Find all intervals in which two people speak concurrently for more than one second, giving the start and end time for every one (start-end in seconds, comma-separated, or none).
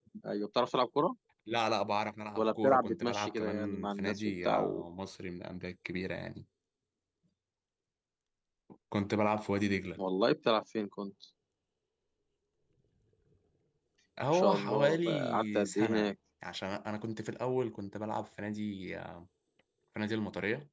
2.4-4.8, 14.3-16.1